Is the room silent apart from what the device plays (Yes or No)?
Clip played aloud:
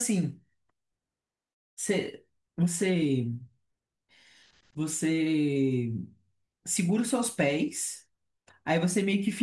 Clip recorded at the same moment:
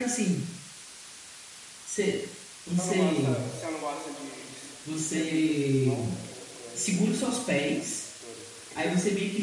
No